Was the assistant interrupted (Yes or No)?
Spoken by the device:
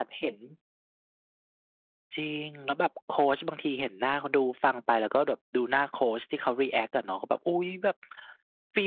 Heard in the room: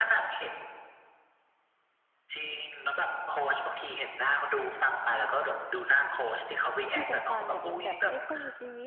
Yes